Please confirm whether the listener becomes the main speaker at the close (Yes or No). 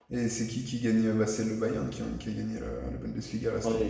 Yes